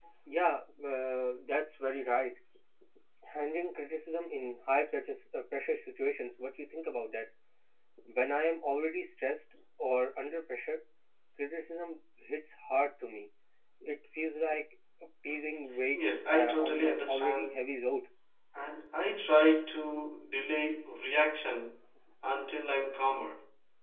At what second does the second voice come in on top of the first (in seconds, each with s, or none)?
15.9 s